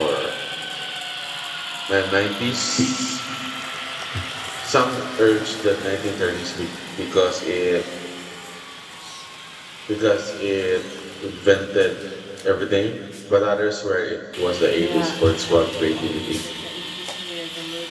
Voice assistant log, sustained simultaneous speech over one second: present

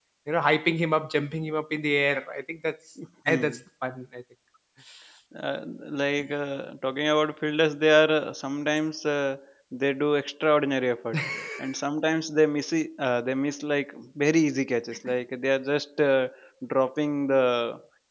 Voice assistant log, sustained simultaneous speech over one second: none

